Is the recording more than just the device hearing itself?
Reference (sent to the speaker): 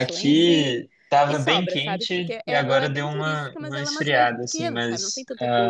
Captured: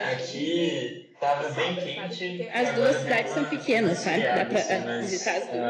Yes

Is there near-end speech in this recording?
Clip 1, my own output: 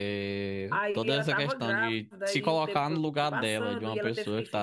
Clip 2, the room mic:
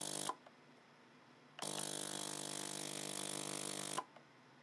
No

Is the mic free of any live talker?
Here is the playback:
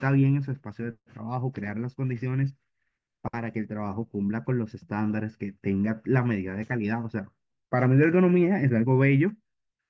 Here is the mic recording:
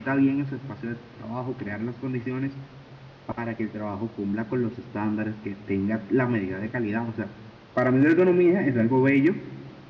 Yes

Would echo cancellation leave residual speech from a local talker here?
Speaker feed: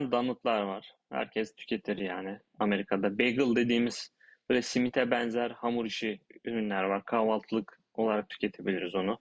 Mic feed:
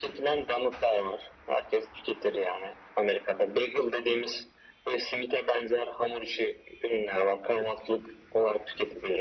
No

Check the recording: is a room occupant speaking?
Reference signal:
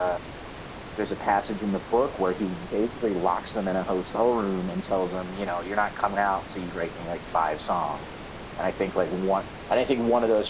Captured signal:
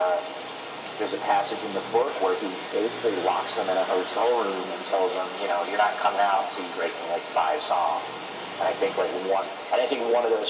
No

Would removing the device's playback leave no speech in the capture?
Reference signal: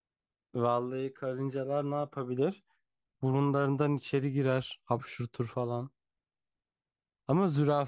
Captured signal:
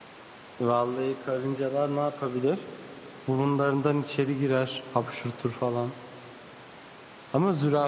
Yes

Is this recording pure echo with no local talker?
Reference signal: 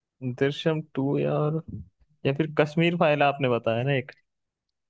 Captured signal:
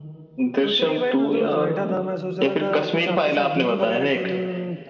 No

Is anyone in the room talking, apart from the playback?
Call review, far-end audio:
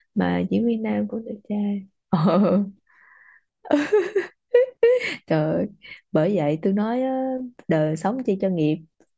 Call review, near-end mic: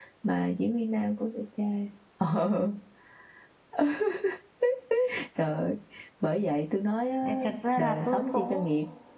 Yes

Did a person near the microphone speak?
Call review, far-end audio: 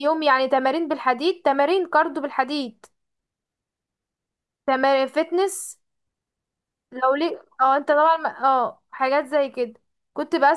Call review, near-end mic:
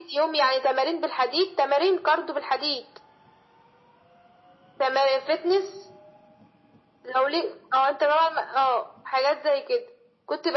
No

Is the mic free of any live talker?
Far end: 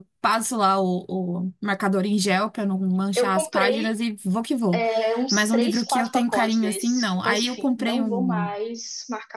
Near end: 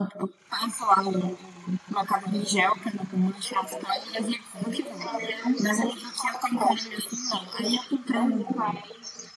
No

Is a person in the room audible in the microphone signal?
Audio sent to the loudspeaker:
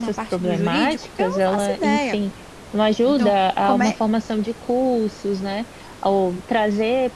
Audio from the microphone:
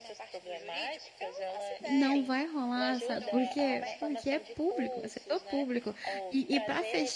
Yes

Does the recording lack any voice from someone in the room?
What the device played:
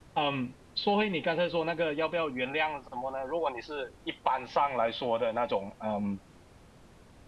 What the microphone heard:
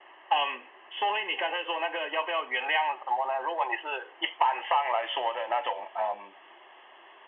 Yes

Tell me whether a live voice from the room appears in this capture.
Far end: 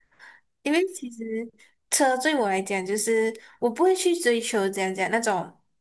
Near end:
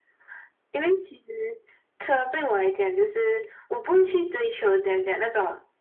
No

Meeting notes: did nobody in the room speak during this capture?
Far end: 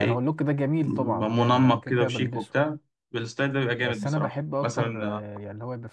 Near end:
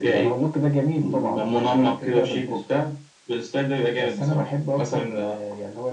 Yes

